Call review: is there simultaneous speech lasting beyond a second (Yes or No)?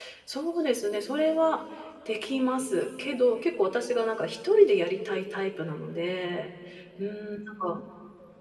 No